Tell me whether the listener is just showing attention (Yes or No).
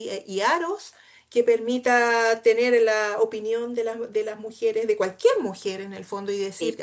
Yes